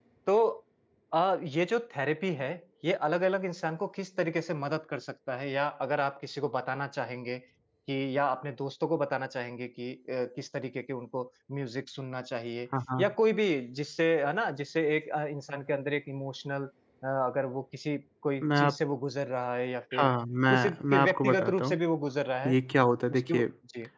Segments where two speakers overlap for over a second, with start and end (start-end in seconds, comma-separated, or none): 20.5-21.8